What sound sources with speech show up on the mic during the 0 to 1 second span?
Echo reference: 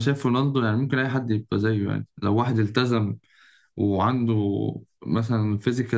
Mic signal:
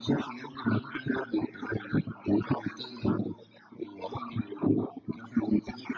echo only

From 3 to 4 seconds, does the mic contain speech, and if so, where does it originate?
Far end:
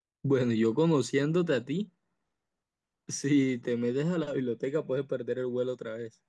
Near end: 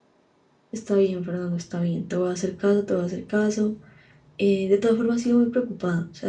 user only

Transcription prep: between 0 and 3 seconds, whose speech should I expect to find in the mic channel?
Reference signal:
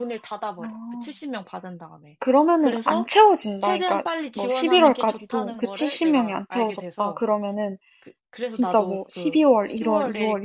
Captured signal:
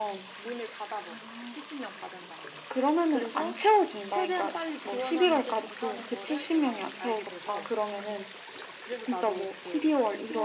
echo only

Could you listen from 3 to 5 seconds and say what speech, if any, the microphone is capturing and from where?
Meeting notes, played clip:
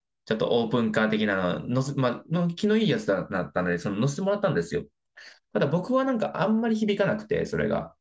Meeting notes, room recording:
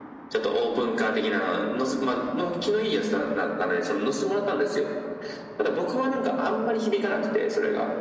echo only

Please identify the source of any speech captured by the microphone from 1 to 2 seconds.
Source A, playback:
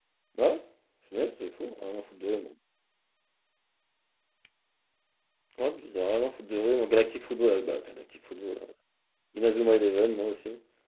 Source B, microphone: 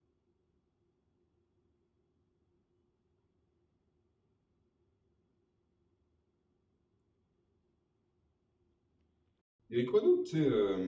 neither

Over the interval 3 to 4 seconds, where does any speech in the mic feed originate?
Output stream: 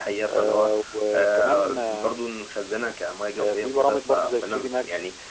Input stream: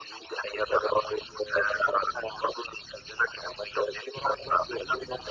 echo only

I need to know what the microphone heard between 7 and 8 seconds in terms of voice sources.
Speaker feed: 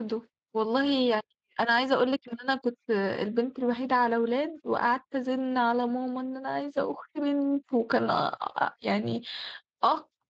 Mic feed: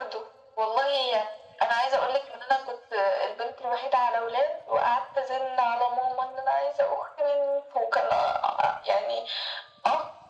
echo only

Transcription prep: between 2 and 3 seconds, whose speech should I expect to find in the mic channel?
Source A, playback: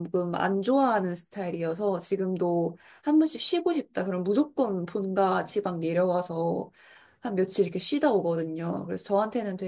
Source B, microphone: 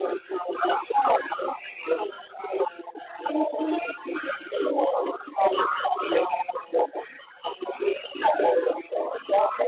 echo only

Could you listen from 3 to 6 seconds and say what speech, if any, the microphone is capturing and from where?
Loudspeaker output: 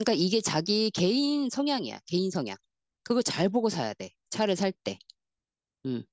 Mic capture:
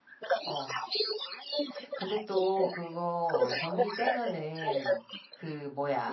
both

